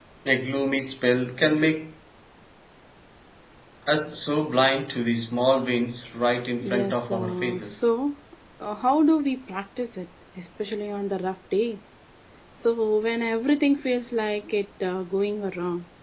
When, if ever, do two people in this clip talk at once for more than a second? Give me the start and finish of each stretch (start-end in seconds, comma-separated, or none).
6.6-7.9